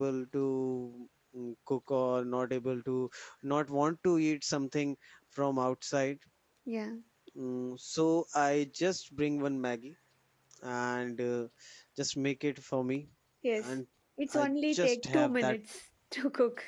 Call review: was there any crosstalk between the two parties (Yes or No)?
Yes